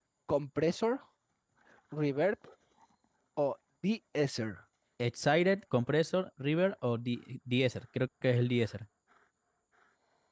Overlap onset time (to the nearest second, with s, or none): none